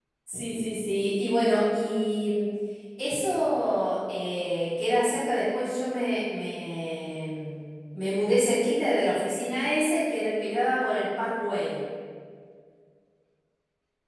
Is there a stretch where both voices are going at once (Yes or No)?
No